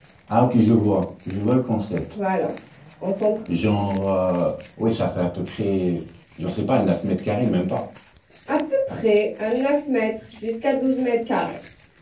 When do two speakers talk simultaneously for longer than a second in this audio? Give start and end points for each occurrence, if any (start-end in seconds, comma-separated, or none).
none